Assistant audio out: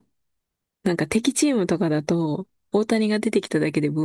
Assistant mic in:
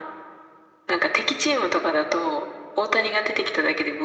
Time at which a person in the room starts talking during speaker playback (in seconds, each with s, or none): none